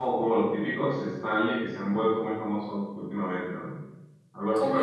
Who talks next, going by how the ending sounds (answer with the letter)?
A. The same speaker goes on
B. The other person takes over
B